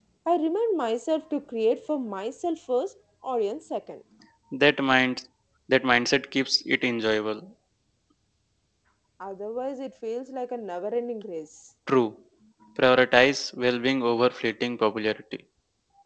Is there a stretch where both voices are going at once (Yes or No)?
No